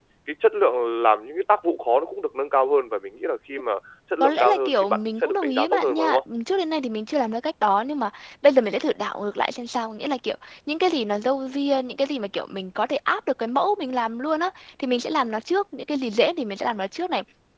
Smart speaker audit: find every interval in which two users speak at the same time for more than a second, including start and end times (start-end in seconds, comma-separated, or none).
4.2-6.2